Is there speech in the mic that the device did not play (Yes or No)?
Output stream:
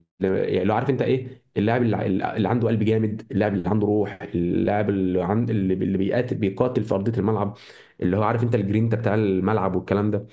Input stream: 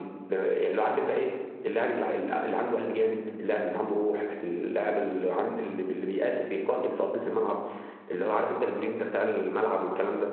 No